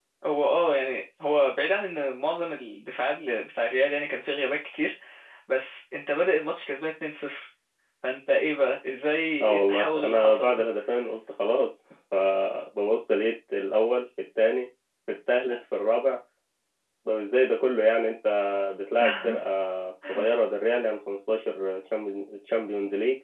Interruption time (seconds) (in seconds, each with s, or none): 9.4 s